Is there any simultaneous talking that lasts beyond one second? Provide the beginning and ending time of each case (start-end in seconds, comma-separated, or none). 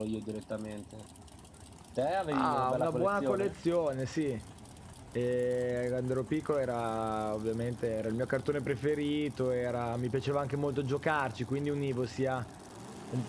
2.3-3.5